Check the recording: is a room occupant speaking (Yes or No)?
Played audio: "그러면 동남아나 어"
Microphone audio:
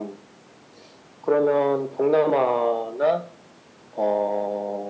No